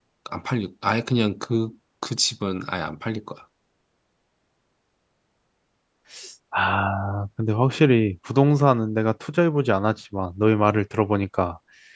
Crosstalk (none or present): none